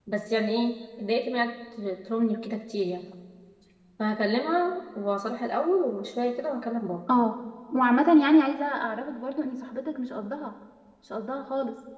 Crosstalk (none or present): none